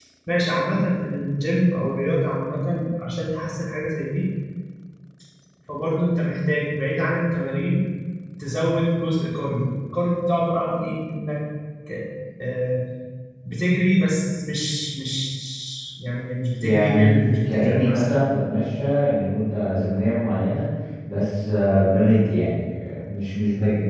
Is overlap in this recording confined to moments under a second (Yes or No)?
No